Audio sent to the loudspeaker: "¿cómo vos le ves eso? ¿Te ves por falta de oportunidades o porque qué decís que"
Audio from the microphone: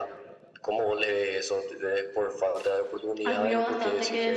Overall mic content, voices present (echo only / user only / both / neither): both